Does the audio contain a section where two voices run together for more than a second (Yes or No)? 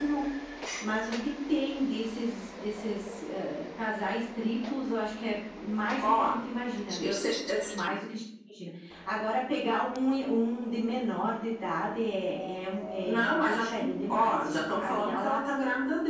Yes